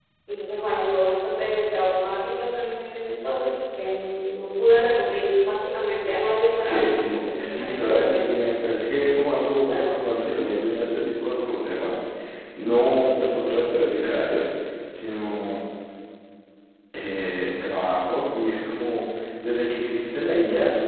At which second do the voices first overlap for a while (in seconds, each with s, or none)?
6.7 s